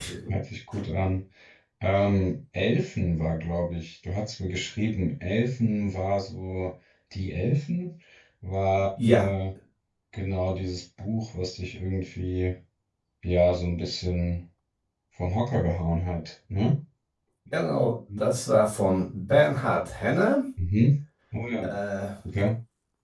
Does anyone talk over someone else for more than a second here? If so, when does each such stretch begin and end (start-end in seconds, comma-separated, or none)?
none